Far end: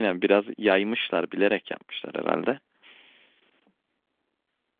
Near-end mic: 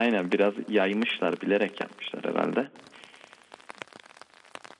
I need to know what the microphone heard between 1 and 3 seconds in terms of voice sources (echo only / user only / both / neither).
echo only